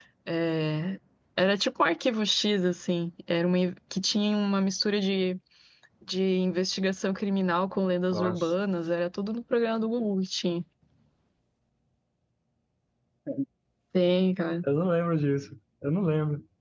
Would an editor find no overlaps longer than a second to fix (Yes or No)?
Yes